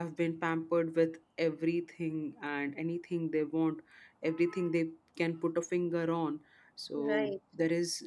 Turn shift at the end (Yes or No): No